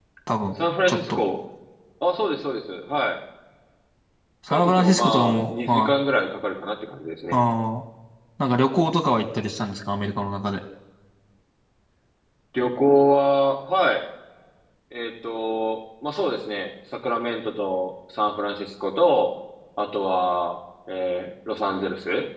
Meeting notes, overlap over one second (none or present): present